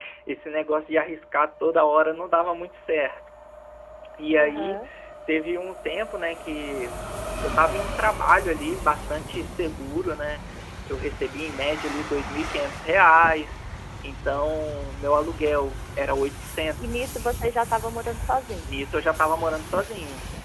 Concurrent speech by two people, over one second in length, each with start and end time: none

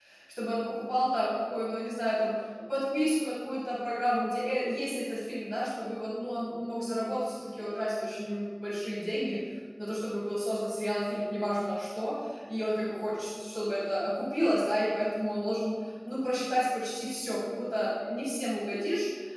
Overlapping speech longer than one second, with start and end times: none

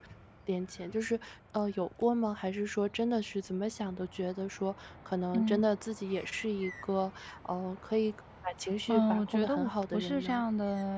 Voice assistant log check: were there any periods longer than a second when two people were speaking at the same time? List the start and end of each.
8.9-10.4

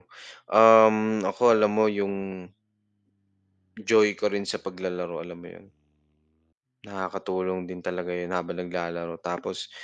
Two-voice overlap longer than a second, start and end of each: none

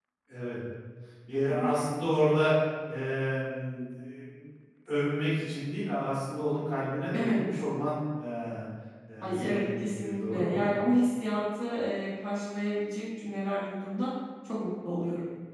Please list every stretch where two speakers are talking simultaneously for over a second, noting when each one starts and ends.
9.2-10.7

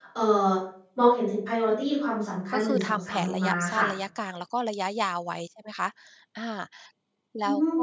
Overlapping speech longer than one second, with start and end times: 2.5-3.9

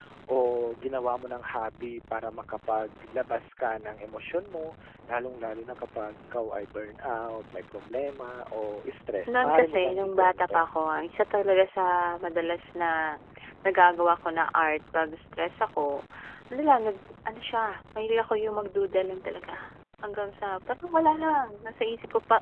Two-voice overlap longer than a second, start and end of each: 9.3-10.7

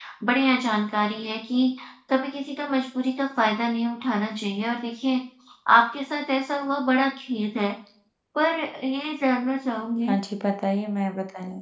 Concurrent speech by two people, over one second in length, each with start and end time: none

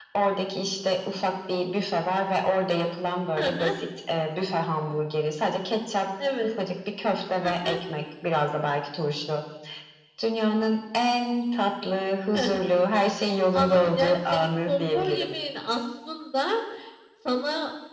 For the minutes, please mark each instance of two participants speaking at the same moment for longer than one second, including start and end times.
13.5-15.3

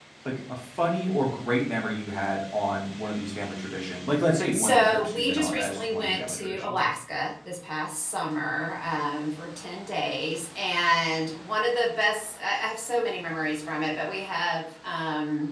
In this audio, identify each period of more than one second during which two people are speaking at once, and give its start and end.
4.5-6.8

